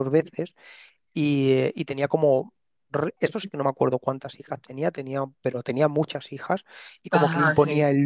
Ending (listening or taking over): listening